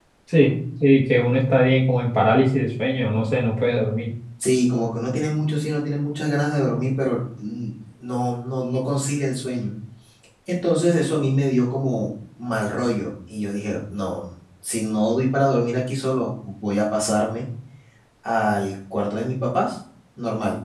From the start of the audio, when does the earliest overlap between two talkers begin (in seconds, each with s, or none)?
none